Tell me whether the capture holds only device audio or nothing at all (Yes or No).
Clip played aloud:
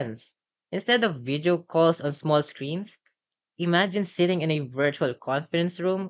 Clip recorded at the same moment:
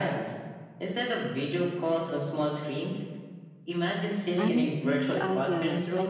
No